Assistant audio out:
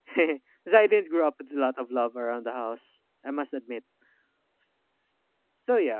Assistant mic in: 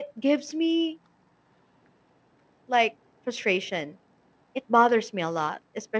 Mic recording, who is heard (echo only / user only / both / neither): user only